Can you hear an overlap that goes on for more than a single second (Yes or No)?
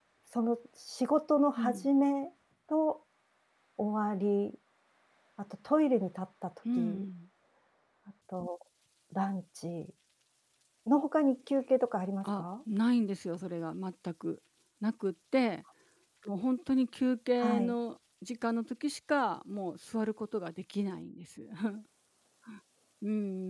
No